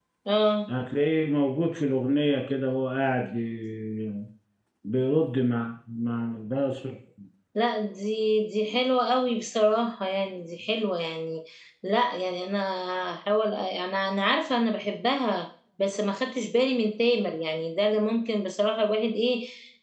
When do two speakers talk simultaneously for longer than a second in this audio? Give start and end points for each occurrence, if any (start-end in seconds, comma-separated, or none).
none